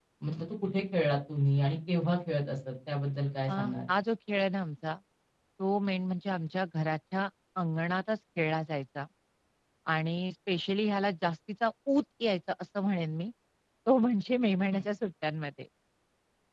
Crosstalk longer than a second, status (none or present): none